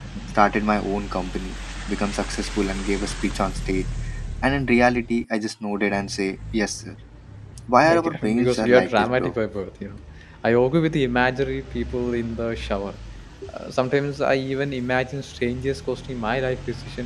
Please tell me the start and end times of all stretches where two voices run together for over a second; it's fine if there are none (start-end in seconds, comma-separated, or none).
7.8-9.3